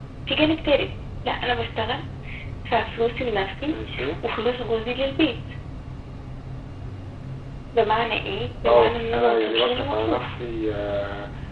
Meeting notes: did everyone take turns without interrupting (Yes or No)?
No